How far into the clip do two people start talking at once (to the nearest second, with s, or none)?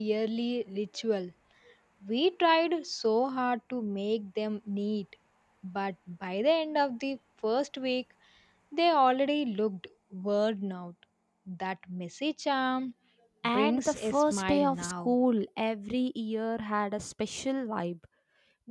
13 s